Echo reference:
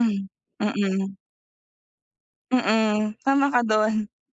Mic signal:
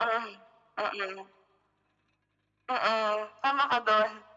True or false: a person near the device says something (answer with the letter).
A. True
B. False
B